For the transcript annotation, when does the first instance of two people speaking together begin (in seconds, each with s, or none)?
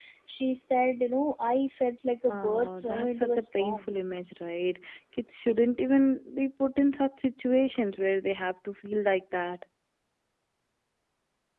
2.3 s